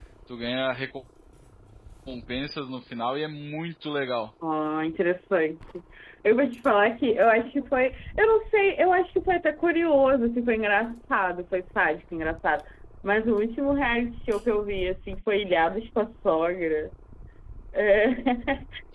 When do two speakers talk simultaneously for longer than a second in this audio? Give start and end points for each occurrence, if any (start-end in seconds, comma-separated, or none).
none